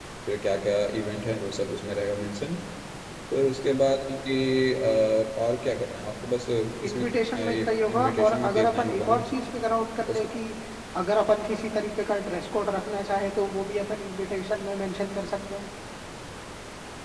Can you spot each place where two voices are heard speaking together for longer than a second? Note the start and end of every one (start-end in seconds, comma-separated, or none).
6.8-9.2